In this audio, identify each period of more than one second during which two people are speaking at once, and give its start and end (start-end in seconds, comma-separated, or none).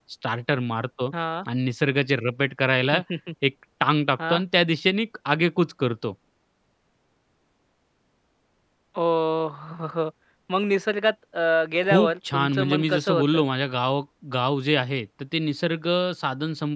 11.8-13.4